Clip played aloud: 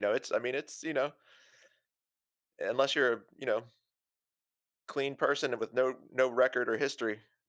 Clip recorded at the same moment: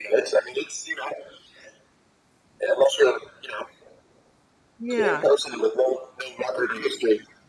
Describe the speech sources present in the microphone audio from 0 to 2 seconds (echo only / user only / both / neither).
echo only